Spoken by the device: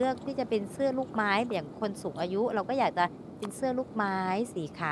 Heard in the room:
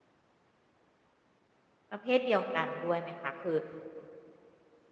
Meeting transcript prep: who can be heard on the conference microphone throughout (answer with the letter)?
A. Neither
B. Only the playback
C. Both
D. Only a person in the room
D